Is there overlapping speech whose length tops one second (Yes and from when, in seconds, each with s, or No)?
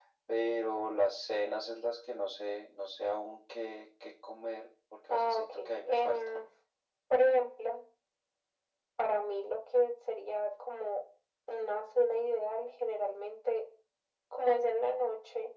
Yes, from 5.1 s